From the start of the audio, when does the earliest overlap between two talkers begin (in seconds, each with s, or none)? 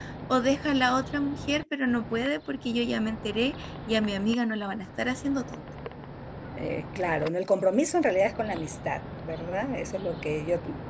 none